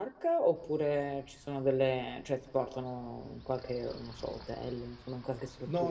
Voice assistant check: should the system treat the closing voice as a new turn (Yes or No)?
Yes